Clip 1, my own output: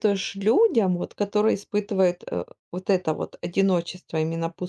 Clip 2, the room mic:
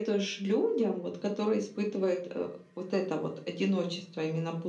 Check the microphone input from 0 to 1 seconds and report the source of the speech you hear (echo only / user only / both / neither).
echo only